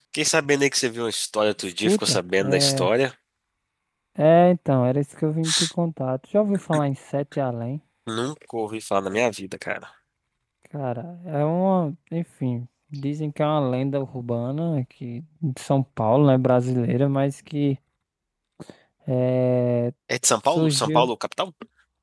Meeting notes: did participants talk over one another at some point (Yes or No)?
Yes